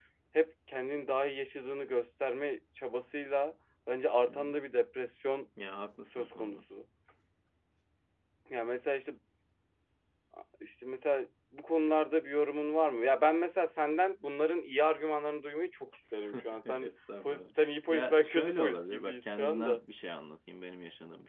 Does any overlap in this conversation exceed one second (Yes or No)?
Yes